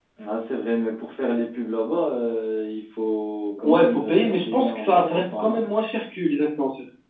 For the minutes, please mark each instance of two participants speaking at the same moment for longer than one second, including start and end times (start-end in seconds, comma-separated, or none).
3.6-5.6